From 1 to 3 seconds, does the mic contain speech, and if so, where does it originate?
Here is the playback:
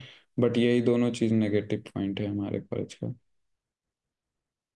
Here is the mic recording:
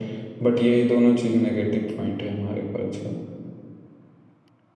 echo only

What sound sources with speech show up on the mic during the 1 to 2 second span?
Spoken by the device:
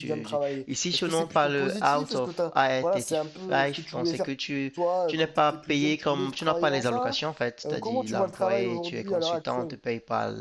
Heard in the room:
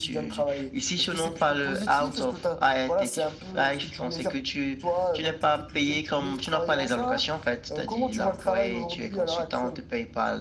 echo only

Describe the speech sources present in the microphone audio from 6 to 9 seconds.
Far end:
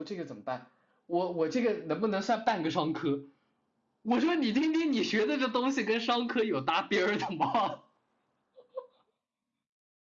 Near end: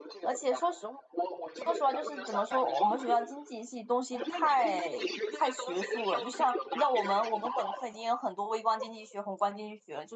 both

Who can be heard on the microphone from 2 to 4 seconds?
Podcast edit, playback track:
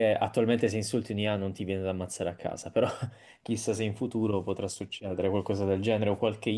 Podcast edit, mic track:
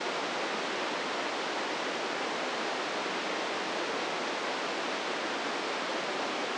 neither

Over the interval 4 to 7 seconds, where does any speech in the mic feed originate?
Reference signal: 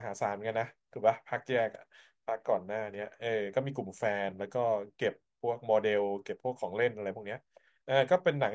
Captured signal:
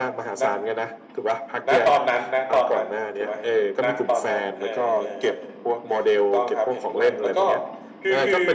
both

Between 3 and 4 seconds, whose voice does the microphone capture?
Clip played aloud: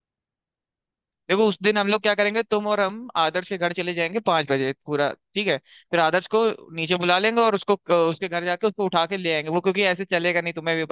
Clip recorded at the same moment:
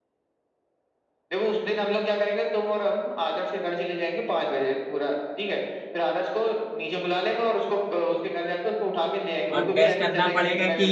echo only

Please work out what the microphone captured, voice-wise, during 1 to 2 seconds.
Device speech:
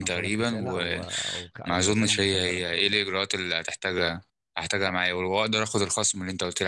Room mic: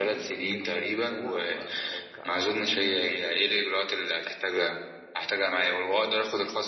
echo only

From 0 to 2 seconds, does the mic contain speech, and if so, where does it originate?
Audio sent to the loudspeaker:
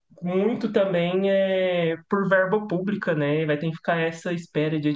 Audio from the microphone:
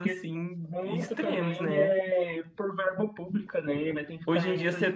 both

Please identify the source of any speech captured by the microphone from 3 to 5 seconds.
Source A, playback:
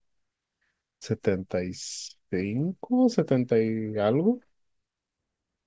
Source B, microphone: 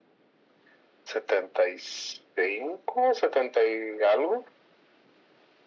echo only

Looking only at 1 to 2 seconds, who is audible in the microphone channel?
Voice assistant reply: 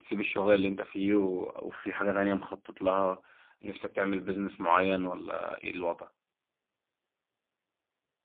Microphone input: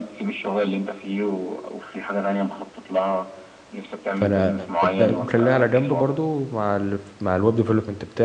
echo only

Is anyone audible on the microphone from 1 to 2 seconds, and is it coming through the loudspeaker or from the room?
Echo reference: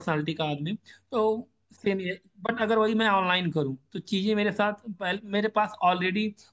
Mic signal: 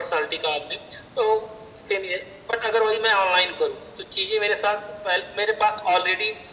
echo only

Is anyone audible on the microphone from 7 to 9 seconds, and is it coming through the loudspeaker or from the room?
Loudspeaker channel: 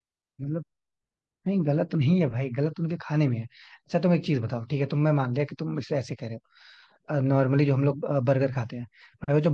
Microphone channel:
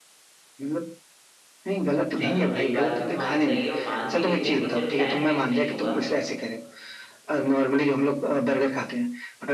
echo only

